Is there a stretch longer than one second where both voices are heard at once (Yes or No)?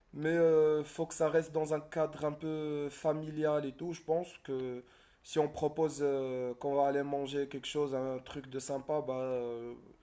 No